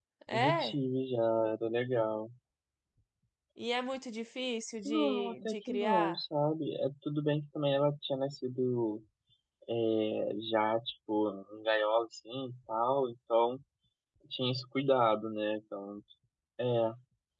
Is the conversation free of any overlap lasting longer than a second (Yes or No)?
No